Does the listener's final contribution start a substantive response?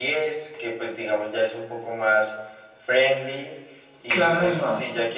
No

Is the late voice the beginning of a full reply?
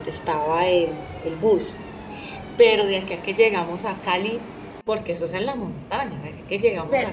Yes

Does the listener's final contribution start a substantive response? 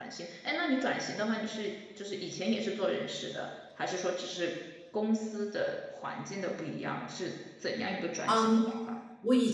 Yes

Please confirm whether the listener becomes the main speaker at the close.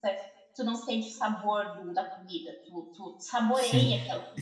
Yes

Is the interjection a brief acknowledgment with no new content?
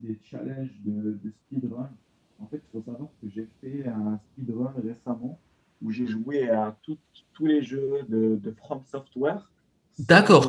No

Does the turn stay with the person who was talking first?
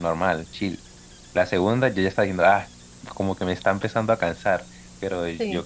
Yes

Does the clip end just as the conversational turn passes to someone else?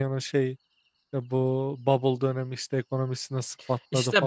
Yes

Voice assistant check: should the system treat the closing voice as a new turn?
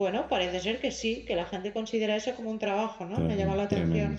Yes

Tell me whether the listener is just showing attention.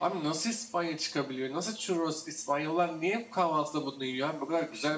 No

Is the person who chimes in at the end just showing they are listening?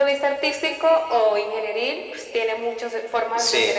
No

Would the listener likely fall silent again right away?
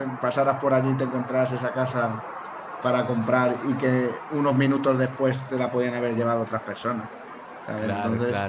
No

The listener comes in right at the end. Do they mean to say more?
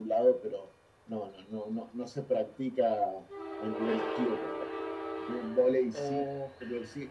No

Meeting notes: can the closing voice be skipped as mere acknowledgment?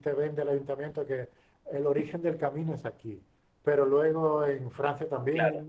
Yes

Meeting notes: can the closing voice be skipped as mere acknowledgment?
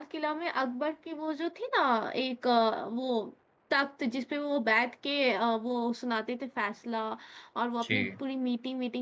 Yes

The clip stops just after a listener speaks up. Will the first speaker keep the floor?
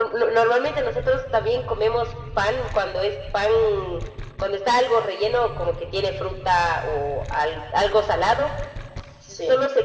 Yes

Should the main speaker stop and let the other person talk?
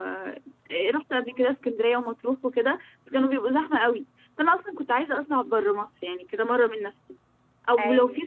No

